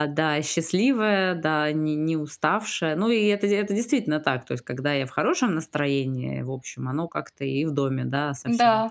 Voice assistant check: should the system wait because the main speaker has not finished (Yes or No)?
Yes